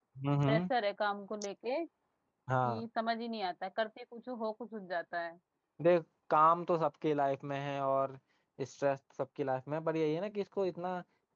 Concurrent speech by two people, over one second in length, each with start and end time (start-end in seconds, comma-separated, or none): none